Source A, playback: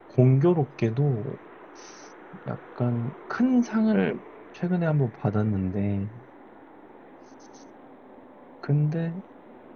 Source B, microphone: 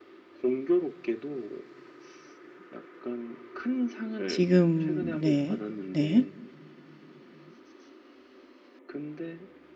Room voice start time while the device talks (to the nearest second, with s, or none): 4 s